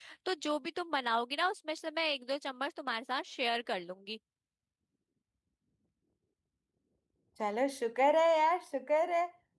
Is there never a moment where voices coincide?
Yes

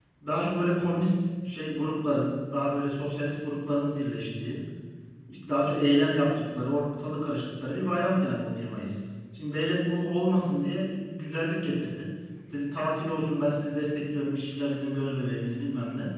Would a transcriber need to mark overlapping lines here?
No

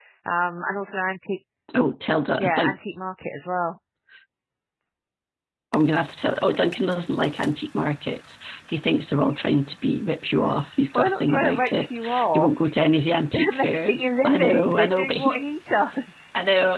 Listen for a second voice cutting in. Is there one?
Yes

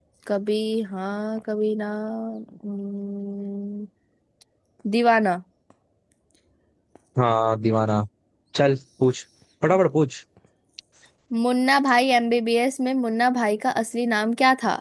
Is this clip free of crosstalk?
Yes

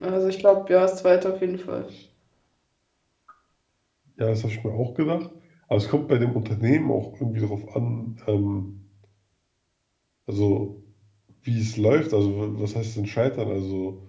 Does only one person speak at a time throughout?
Yes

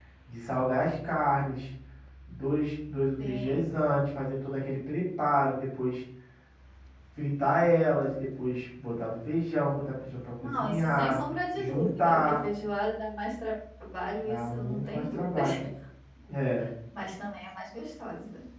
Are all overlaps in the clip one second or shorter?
No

